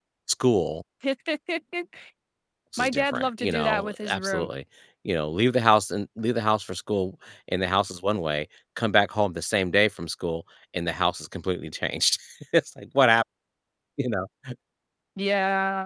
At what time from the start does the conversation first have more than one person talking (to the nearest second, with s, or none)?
3 s